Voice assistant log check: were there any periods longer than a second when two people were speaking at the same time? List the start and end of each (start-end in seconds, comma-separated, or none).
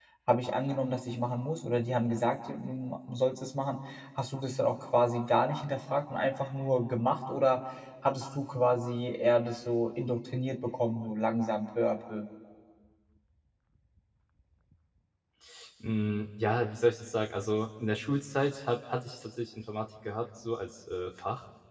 none